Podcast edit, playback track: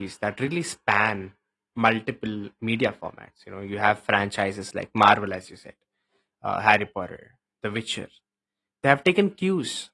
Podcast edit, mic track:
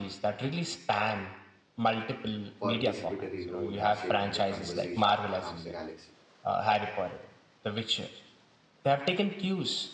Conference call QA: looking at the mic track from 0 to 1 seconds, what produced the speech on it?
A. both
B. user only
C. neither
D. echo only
D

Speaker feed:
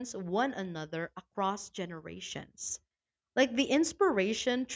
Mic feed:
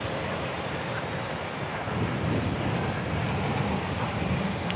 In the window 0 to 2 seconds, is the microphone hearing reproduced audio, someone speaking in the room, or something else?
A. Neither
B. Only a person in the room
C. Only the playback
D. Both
A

